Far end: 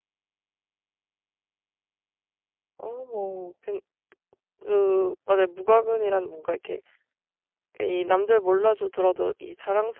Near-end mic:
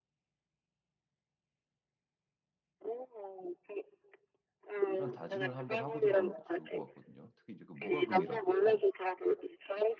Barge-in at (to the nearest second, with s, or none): 5 s